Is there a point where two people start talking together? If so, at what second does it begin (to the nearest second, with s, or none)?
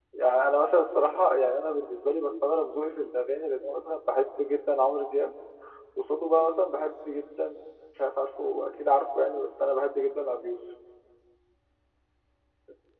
none